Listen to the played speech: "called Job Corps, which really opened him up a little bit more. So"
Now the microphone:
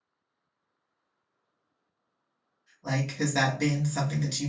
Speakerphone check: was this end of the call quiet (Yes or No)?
No